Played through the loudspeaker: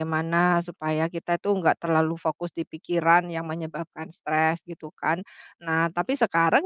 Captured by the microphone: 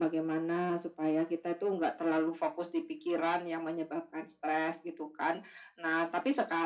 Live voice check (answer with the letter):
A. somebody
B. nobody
B